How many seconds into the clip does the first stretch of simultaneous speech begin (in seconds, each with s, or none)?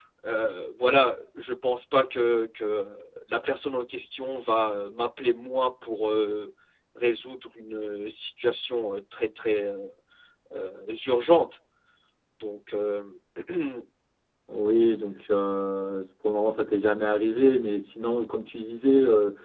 none